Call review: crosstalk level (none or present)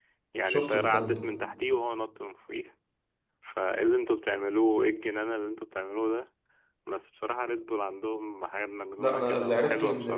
present